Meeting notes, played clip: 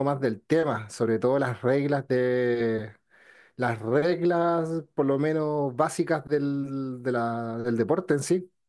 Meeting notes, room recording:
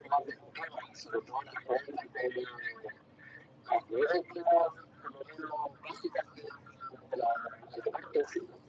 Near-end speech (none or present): none